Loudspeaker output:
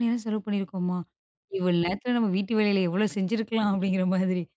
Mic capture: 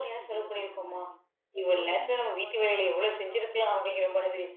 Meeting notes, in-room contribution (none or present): present